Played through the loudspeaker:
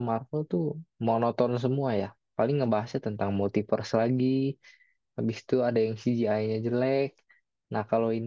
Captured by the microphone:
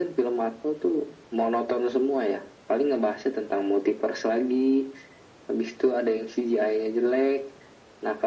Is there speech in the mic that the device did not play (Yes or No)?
No